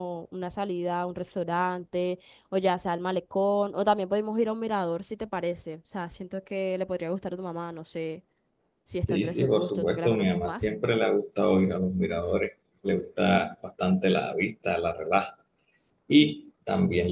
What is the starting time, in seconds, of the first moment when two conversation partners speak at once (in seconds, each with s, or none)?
9.1 s